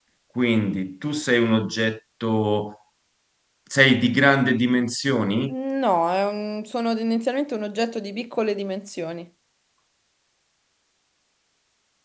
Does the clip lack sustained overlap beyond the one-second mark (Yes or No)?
Yes